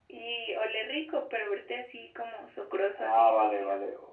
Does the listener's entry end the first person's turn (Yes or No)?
Yes